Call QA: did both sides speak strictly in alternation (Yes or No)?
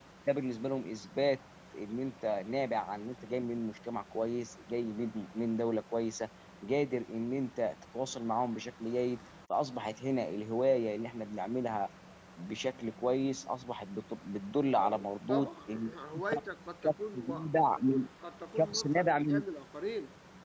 No